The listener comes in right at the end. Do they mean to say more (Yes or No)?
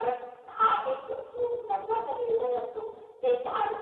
No